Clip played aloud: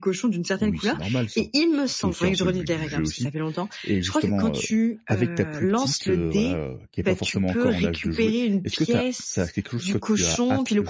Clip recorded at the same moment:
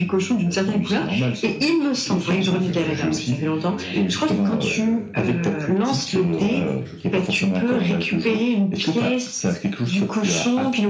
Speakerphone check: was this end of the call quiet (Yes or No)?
No